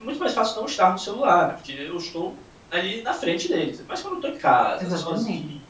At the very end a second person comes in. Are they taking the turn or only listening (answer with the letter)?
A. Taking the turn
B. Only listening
B